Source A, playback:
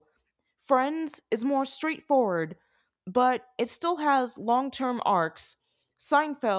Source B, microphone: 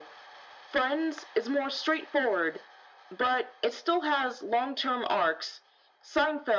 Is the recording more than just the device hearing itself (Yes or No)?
No